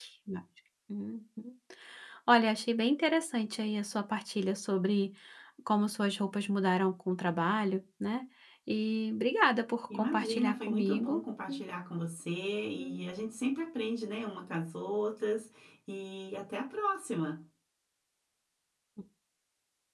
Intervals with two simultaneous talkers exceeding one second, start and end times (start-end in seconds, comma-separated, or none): 9.9-11.2